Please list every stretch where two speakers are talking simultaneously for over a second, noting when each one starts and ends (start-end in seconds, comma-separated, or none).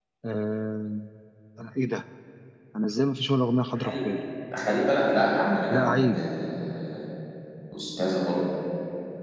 none